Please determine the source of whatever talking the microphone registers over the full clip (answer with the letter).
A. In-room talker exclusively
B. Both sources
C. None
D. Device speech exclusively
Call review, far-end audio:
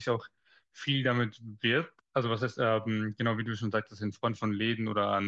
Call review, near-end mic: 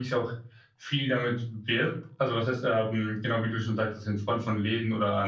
D